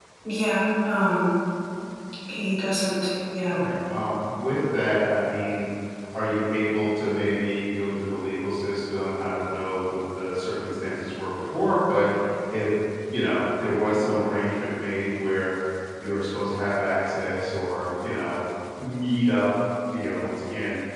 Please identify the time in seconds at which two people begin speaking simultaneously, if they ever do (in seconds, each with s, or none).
none